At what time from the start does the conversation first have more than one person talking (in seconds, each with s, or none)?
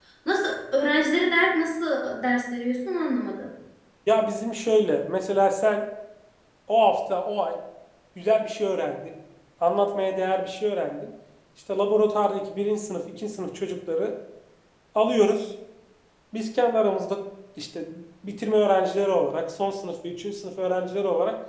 none